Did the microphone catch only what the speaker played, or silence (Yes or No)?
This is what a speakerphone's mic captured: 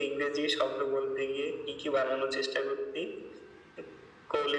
Yes